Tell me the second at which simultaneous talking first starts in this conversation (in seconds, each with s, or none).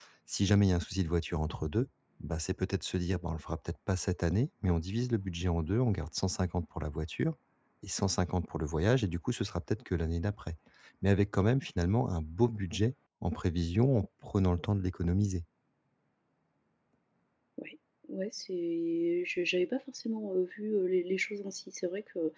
none